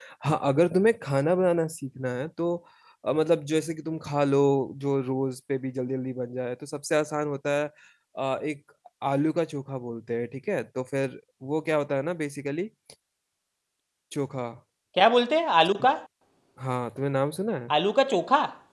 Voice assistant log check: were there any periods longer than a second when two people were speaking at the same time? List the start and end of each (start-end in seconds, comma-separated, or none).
none